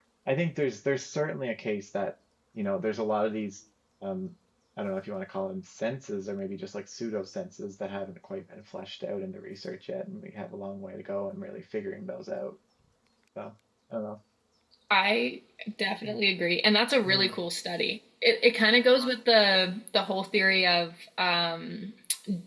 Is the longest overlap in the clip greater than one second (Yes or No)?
No